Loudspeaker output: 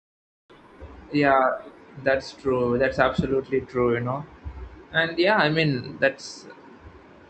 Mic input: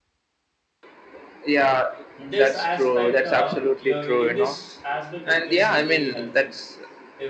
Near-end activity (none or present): present